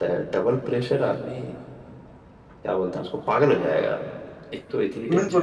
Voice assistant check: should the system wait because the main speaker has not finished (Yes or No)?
No